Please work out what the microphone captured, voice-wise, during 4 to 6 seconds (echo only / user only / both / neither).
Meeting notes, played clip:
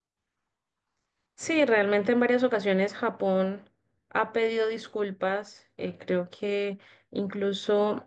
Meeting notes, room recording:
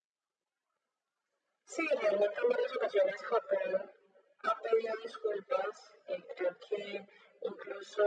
echo only